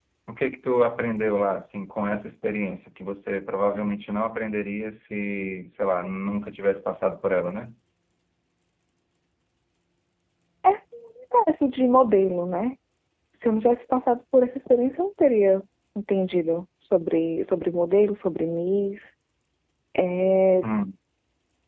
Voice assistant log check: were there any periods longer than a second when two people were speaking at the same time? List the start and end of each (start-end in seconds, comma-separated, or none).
none